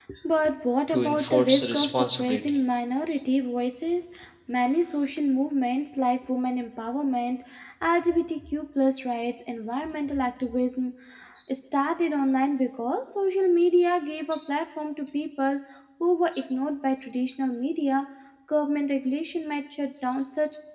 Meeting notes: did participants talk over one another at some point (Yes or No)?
Yes